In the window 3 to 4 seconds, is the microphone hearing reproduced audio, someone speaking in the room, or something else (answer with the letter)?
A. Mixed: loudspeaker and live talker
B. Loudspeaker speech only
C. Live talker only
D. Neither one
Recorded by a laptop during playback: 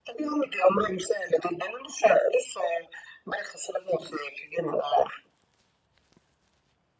B